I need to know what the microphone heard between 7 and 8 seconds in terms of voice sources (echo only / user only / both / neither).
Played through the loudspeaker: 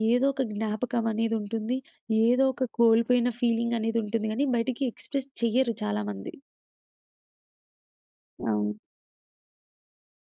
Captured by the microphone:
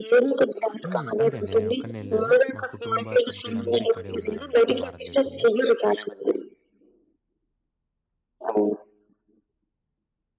neither